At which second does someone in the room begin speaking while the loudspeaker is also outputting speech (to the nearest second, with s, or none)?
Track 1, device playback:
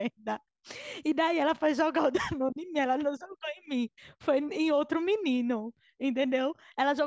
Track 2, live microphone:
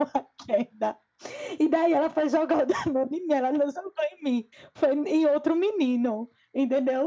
none